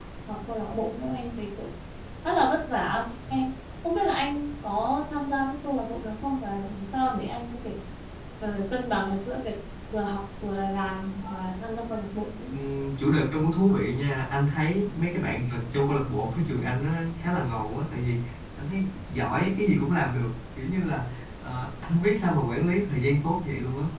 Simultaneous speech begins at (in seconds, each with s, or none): none